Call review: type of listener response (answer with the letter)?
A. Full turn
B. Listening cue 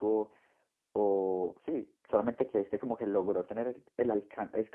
B